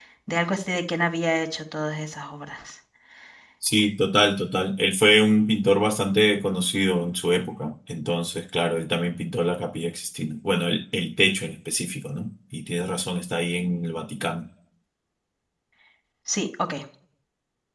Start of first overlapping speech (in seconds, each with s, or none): none